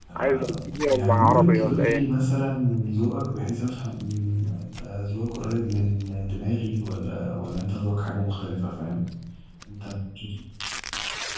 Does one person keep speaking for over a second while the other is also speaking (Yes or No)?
Yes